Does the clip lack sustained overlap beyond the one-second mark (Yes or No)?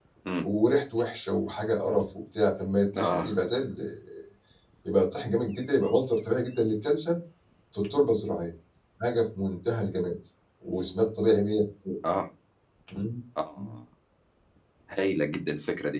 Yes